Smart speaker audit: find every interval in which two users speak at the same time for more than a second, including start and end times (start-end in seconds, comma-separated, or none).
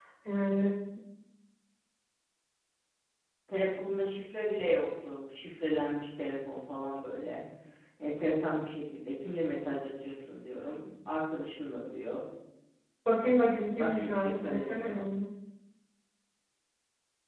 13.8-15.1